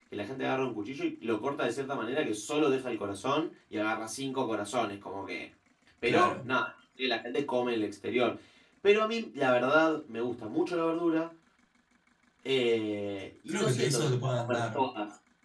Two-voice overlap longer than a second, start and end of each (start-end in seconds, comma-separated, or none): 13.5-14.8